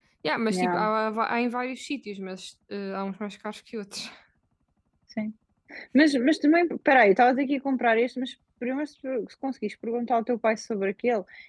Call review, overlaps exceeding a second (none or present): none